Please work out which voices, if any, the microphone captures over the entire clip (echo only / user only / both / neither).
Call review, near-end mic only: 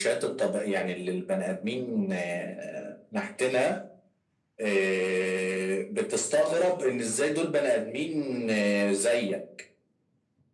echo only